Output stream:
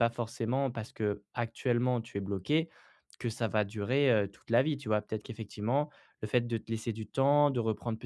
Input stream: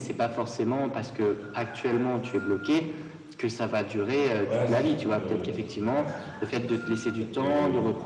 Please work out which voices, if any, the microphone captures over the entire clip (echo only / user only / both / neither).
both